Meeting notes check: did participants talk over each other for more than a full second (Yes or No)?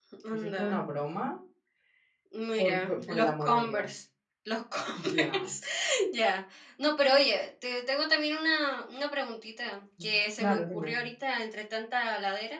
Yes